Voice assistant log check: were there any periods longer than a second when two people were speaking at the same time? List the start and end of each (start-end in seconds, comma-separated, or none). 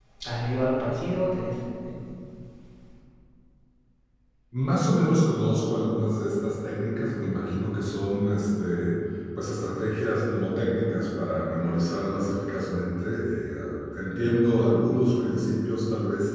none